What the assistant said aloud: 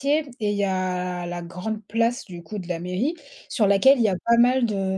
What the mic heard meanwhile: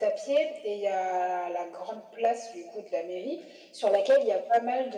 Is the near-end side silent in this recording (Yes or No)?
Yes